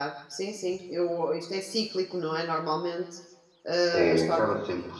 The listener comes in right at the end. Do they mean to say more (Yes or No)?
Yes